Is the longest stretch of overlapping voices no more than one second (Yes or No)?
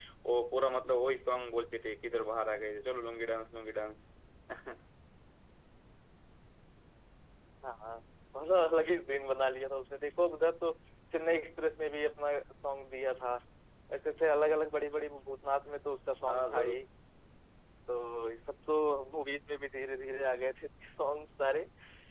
Yes